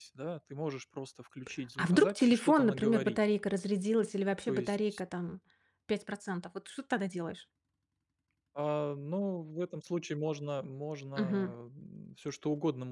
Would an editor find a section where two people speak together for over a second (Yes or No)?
Yes